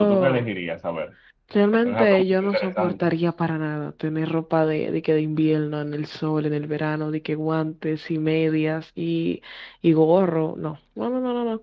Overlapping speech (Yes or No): Yes